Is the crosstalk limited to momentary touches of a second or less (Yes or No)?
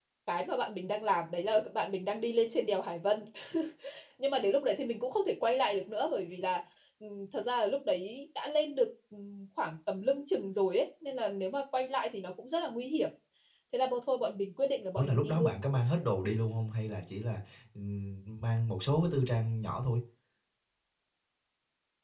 Yes